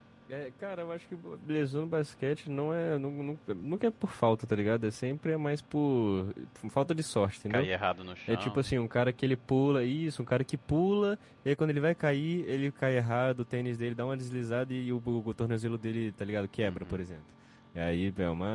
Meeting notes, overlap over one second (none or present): none